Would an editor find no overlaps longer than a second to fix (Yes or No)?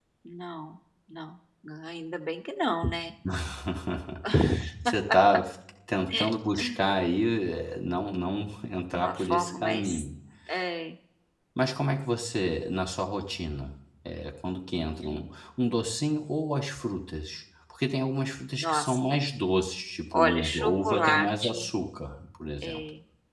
No